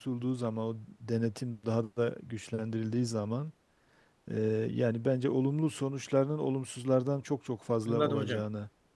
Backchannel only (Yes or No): No